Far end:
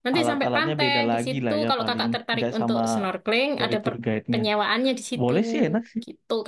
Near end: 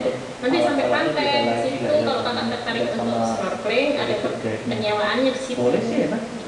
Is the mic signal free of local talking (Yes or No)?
Yes